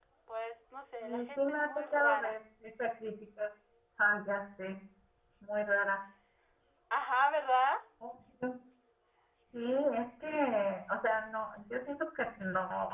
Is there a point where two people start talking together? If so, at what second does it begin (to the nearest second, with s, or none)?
1 s